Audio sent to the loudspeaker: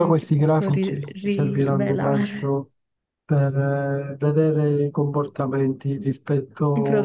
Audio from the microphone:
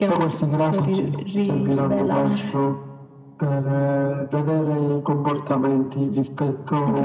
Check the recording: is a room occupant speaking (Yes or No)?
No